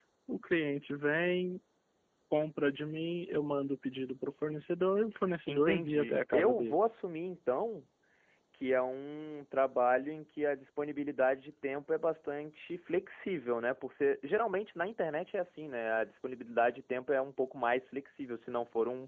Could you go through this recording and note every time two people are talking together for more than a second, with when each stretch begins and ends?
5.5-6.8

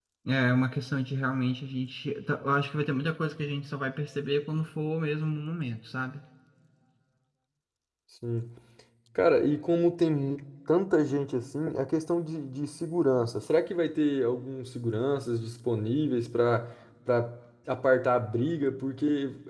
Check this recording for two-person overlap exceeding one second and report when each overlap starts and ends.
none

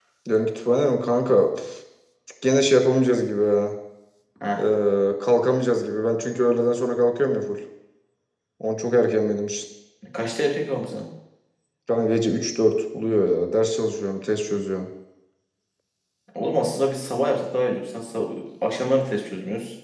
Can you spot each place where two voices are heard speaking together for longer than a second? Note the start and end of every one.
none

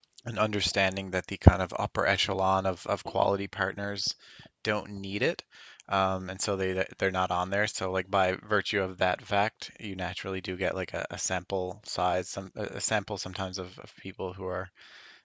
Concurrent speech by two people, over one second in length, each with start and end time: none

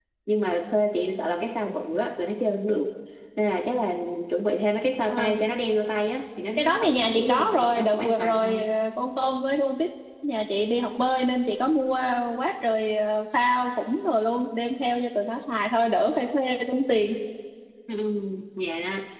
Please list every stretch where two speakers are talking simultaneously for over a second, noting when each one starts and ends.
6.6-8.6

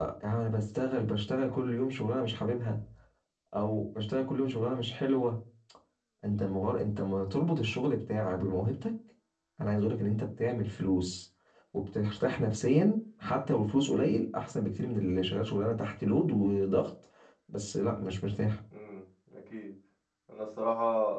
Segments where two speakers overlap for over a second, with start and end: none

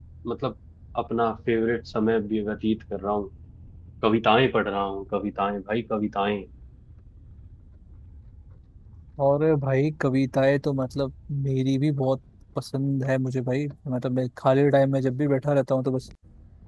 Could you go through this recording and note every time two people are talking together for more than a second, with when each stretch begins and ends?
none

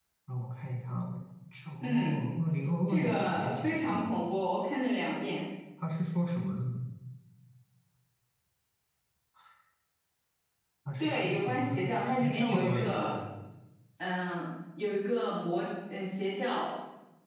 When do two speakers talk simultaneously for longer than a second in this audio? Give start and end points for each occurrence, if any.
2.9-4.1, 11.0-13.1

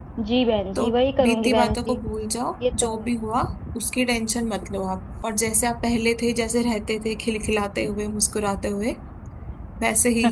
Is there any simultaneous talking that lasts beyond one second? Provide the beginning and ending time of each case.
0.8-2.0

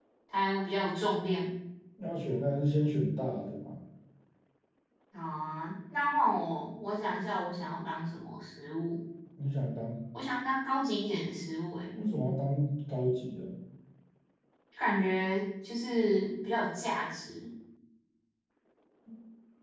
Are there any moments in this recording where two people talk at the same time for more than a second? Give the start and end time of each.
none

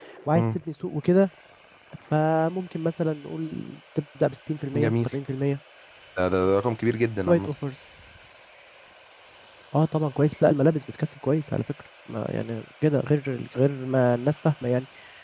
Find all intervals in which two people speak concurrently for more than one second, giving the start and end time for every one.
none

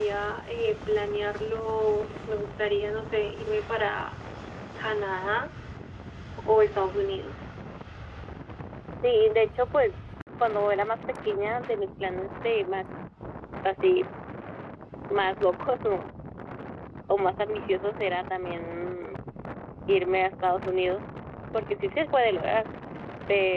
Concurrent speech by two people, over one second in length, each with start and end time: none

